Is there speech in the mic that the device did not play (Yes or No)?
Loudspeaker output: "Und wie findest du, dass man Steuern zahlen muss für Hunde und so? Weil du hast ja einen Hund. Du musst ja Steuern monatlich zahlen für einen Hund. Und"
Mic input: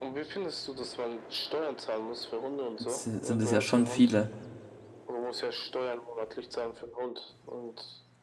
Yes